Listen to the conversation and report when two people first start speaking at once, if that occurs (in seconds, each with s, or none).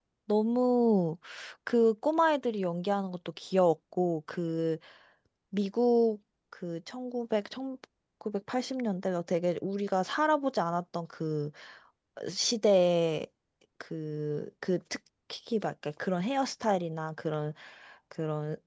none